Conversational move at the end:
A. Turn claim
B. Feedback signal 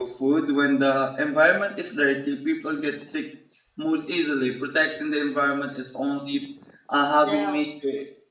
B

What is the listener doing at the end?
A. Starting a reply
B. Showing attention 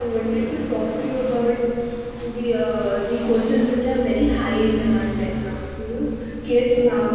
B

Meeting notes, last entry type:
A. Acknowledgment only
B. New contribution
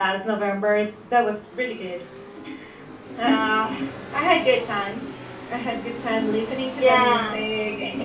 A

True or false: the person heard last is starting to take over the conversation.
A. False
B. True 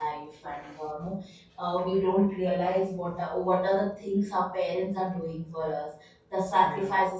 A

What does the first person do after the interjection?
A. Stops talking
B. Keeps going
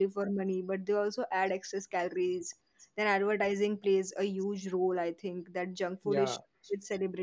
B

